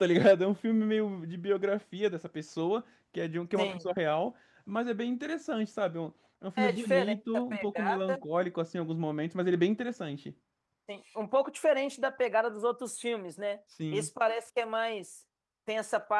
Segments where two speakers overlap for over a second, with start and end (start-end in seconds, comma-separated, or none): 6.6-8.2